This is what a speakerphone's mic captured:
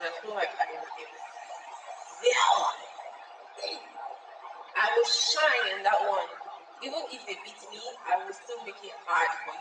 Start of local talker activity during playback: none

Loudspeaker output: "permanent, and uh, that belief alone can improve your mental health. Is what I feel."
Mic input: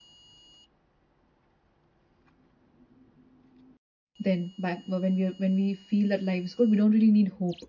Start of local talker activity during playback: 4.2 s

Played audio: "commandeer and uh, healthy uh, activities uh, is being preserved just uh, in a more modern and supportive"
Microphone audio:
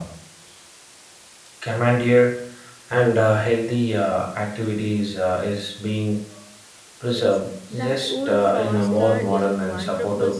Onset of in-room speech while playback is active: 7.0 s

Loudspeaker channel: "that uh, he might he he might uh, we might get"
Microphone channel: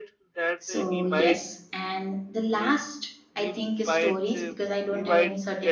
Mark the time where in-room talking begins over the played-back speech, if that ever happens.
0.6 s

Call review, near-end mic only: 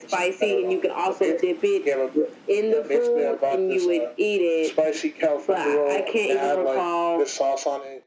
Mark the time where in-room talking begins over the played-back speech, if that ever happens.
none

